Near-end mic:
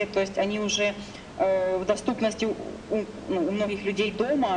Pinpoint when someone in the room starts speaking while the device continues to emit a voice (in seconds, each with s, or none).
none